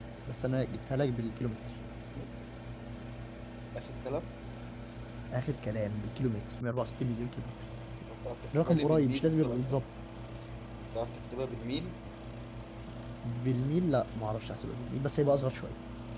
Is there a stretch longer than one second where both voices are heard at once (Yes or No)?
Yes